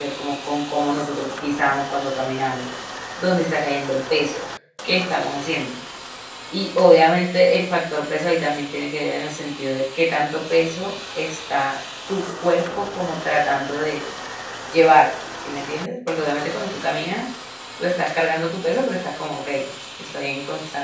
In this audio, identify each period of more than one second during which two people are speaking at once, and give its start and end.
none

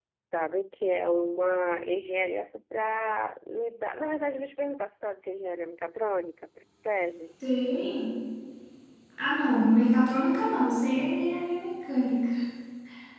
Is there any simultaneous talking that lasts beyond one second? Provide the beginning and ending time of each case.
none

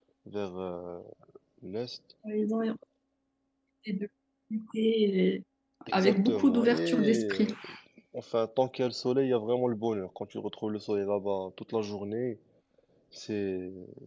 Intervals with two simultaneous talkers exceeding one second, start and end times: 5.9-7.5

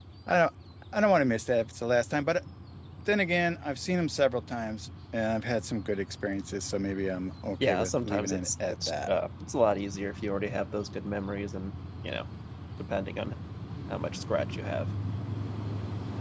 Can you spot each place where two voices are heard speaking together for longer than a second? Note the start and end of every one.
7.6-9.1

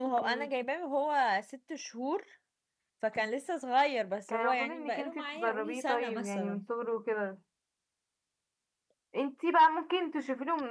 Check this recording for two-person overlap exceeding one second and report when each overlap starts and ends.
4.3-6.6

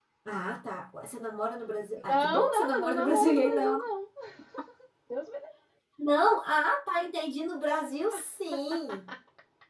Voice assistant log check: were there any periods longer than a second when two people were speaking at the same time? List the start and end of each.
2.1-3.8

